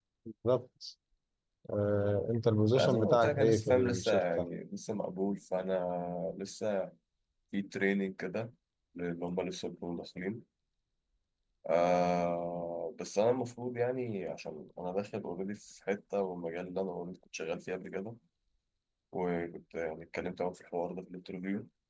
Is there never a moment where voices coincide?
No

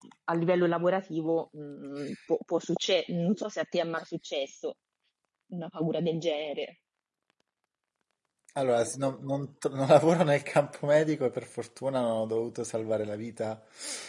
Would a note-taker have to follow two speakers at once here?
No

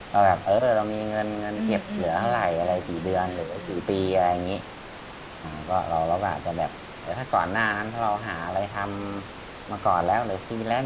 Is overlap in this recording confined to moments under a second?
No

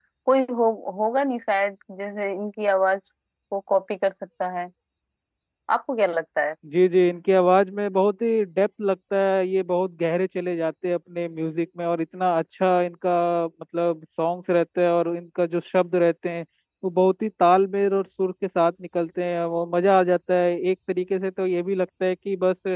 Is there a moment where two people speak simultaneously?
No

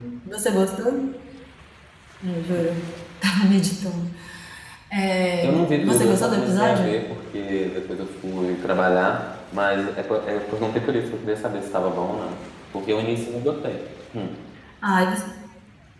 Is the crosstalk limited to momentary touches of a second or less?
No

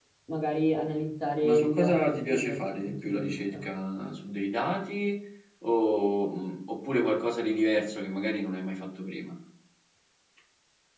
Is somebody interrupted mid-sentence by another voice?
Yes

